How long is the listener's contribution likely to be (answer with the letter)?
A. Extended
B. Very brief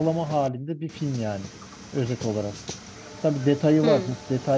B